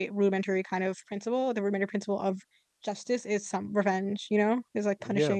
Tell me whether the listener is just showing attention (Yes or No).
No